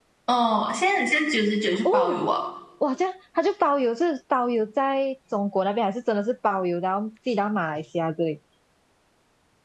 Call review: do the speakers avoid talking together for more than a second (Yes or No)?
Yes